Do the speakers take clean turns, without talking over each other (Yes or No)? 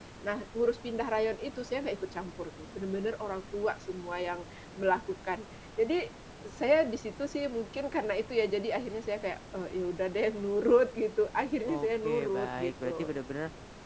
No